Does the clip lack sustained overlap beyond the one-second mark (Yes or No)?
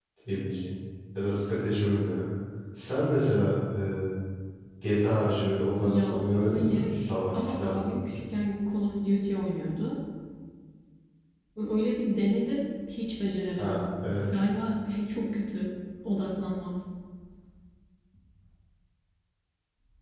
No